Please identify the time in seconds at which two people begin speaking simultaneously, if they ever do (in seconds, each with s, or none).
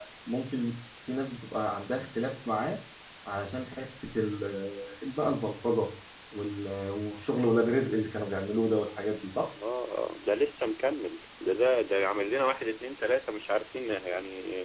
none